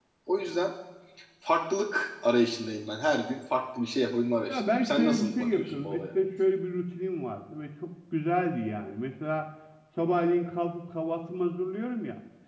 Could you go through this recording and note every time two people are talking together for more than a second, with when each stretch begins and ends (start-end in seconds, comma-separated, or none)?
4.5-6.0